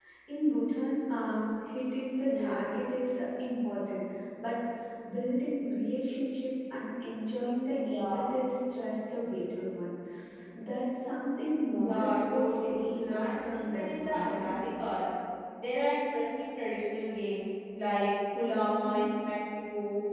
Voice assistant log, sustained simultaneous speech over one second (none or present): present